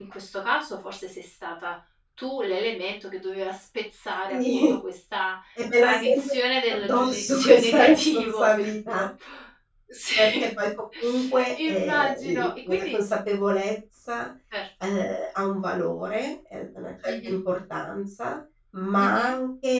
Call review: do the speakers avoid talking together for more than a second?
No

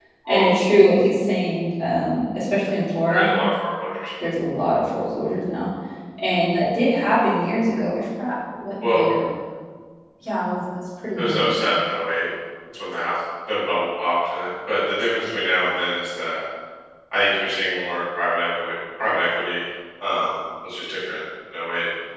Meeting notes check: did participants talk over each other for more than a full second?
No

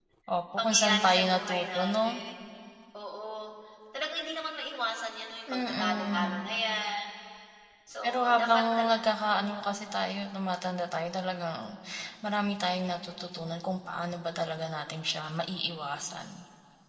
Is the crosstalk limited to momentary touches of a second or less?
No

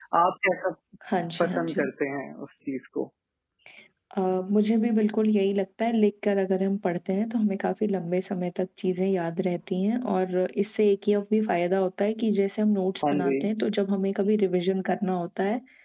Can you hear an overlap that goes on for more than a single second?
No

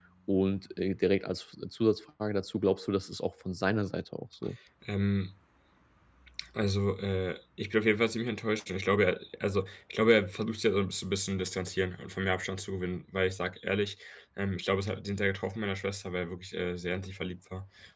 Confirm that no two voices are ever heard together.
Yes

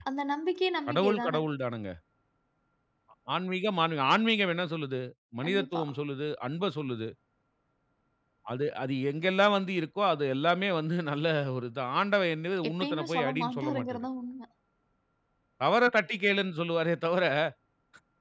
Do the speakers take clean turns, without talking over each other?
No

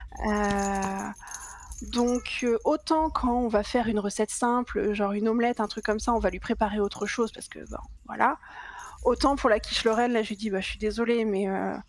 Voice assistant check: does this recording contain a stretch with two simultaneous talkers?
No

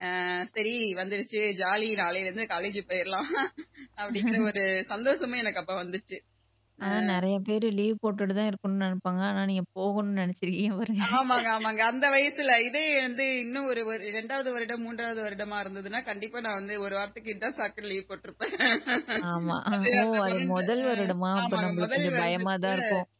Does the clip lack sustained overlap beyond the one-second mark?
No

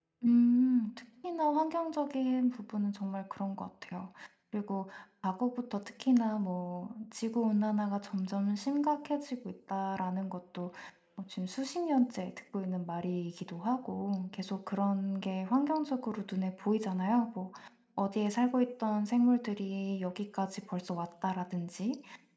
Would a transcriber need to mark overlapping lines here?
No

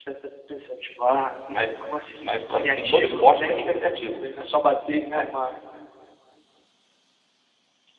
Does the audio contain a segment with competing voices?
Yes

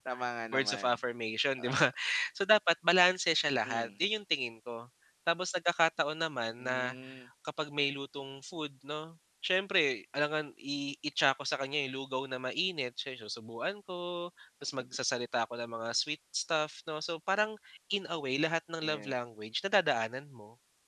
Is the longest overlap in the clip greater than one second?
No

